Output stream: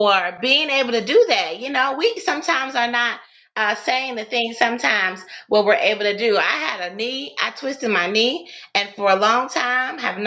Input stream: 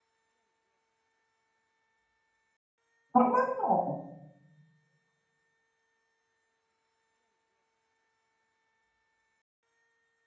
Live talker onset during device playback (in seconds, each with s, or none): 3.1 s